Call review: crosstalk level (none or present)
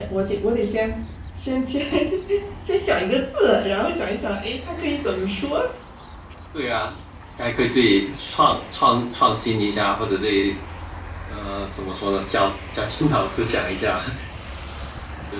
none